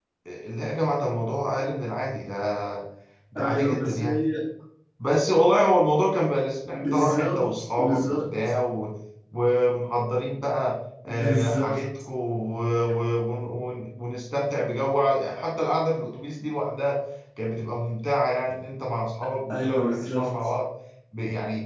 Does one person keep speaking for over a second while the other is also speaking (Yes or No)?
Yes